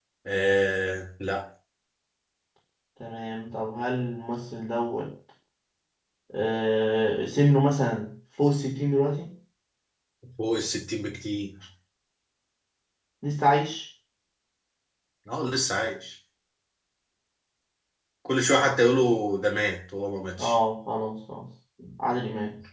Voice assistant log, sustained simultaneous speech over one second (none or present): none